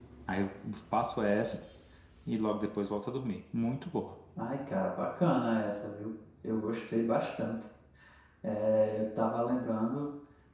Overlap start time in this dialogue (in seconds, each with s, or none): none